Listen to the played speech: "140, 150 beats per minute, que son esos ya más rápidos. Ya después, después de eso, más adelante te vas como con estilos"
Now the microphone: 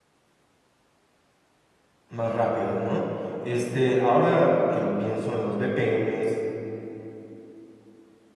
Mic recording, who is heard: user only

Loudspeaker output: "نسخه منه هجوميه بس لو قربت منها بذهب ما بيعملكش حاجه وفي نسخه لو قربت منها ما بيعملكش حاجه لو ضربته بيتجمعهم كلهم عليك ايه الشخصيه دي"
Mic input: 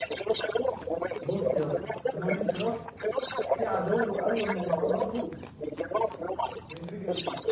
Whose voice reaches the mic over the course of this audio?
both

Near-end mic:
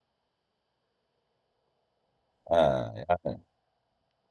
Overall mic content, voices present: user only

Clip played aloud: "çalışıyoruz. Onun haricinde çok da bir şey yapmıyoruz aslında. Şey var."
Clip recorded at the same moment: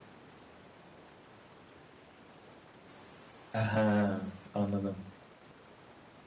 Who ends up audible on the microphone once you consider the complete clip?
user only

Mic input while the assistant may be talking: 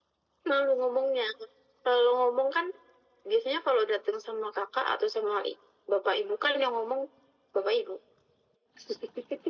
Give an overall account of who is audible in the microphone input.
echo only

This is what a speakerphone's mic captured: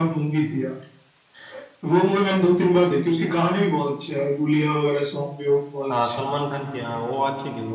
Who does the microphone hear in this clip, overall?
both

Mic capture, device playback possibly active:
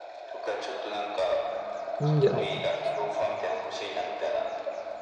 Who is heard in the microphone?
both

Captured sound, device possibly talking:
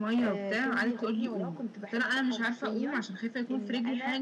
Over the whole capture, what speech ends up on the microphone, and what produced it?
echo only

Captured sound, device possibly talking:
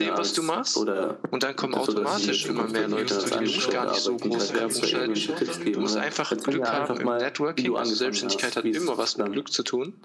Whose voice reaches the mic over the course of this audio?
both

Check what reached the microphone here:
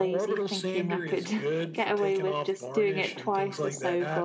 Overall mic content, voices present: both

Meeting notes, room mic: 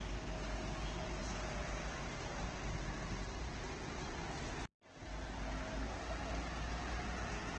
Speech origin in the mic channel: neither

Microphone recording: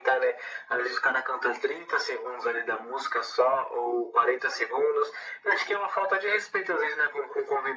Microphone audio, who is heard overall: echo only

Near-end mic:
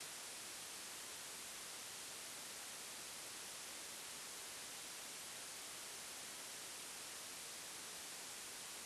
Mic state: neither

